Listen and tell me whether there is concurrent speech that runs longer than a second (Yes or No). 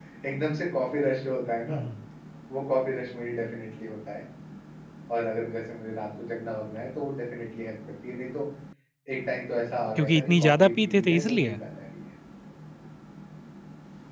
Yes